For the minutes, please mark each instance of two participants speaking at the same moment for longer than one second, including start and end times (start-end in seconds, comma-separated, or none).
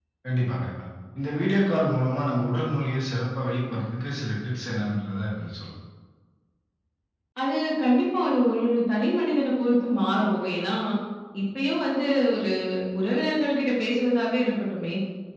none